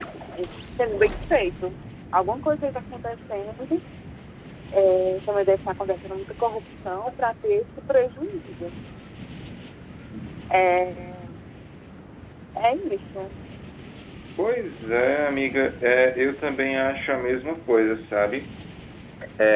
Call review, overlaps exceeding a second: none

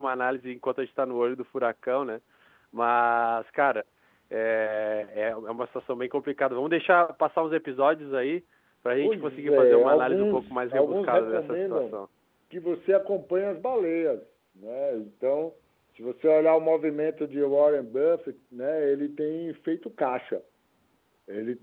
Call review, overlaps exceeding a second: present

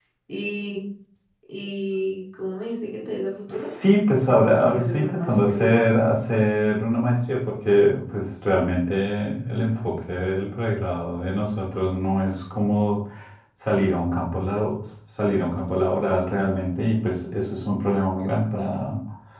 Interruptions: present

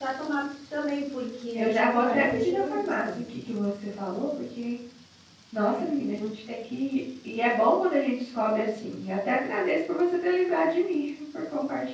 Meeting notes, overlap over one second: present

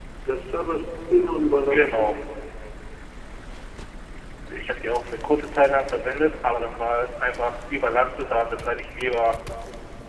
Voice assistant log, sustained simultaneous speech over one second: none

